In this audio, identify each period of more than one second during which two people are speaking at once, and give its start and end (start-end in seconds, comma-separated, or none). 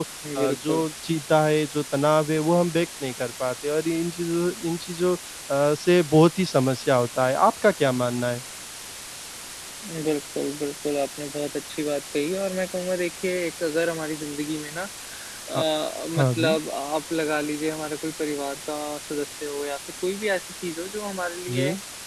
none